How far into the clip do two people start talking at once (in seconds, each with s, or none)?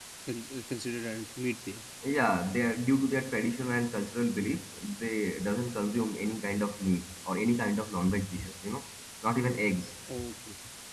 none